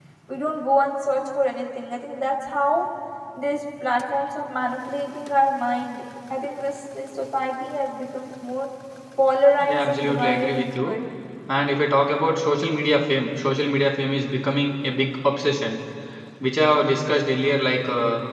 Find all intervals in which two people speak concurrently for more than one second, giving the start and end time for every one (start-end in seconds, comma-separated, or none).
9.6-11.0